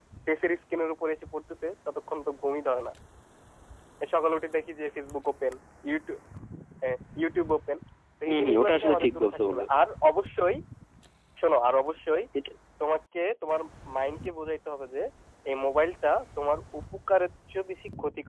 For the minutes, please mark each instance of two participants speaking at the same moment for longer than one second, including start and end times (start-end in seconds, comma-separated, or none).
8.2-9.7